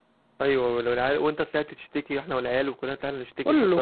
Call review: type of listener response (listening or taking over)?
taking over